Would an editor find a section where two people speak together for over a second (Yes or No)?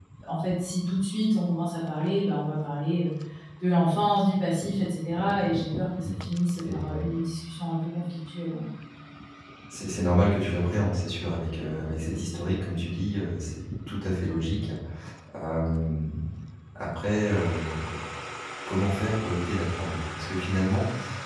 No